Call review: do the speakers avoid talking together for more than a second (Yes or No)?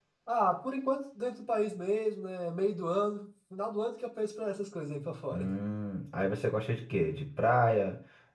Yes